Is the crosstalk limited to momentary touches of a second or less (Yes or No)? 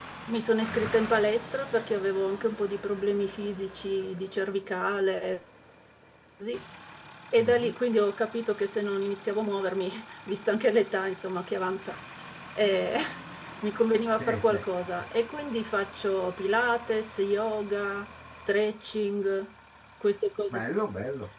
Yes